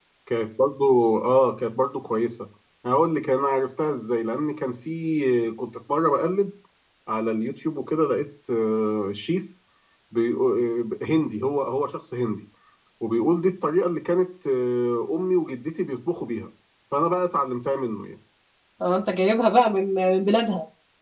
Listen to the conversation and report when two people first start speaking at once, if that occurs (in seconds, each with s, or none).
none